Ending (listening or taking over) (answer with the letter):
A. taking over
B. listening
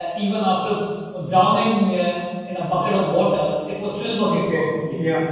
A